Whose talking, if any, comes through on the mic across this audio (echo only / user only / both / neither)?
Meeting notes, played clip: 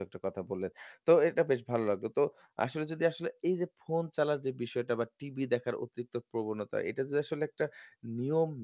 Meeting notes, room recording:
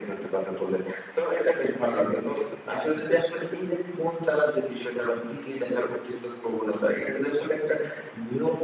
echo only